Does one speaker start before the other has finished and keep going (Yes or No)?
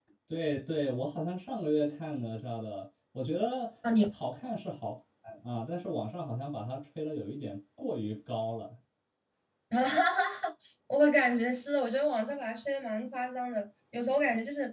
No